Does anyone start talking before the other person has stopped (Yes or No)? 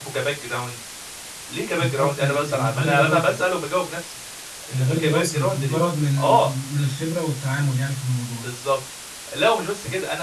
Yes